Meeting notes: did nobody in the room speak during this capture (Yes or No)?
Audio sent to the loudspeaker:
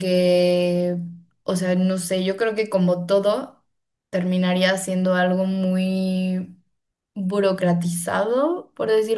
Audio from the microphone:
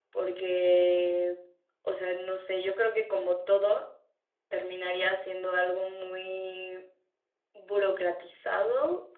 Yes